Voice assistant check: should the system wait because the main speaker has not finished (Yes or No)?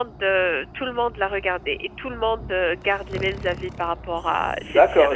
No